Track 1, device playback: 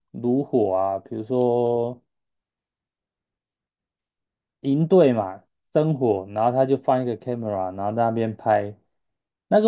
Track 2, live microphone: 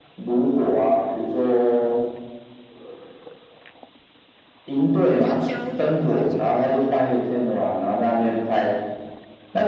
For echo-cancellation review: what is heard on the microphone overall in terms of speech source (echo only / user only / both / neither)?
both